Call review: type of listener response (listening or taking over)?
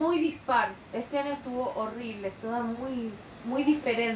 taking over